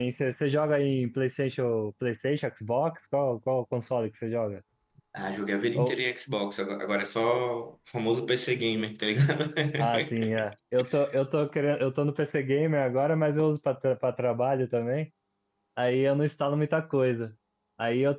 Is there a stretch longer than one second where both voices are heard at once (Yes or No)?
No